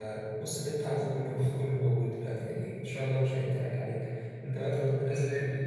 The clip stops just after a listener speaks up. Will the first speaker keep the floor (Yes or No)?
No